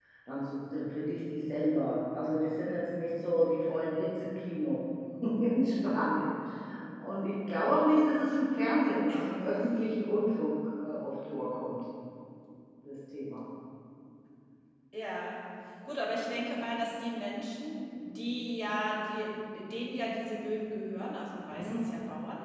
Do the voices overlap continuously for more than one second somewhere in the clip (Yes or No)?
No